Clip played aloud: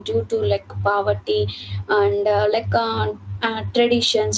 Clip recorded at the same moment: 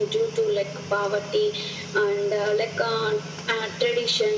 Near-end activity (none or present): none